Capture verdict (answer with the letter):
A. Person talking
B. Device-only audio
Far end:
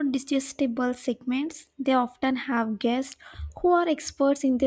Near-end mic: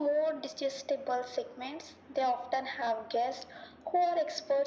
B